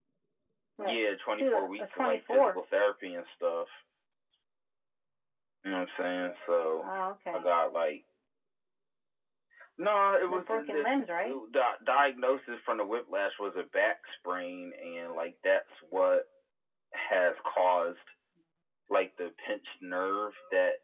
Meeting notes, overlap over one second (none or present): present